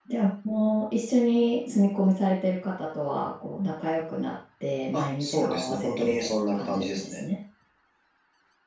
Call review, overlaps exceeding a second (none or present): present